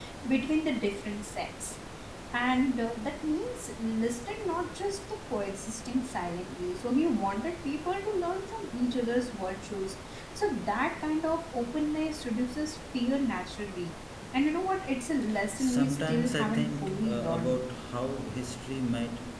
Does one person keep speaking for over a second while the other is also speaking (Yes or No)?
Yes